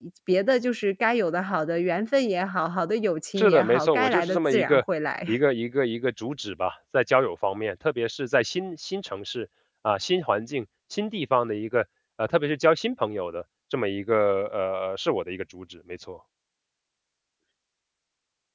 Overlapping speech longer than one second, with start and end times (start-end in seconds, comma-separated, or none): 3.4-4.8